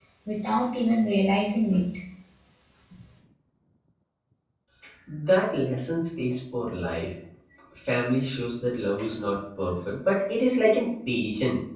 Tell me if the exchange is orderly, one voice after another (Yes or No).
Yes